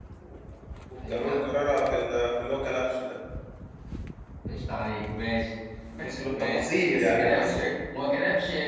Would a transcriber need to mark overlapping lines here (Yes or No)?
Yes